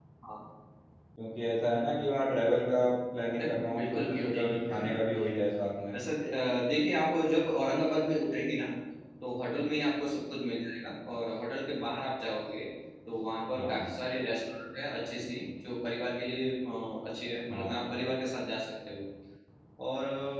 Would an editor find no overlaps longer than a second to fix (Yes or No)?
No